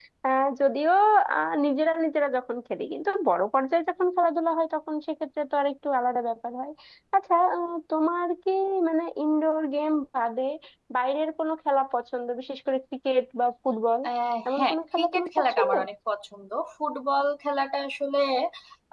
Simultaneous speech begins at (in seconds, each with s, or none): 14.5 s